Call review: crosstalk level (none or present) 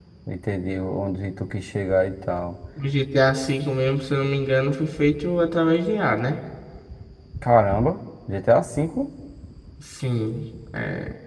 none